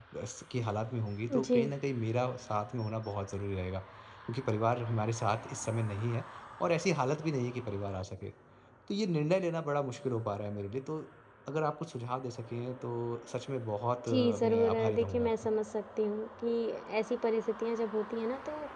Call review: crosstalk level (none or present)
present